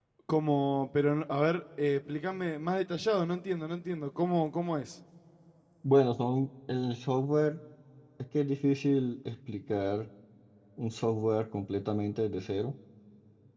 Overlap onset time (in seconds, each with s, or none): none